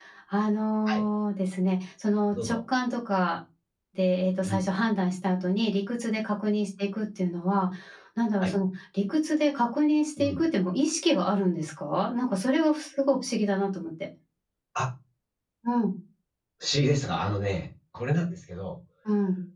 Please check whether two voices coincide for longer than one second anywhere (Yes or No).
No